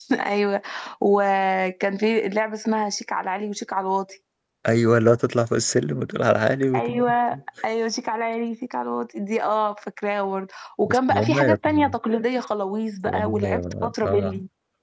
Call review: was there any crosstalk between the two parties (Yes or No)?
Yes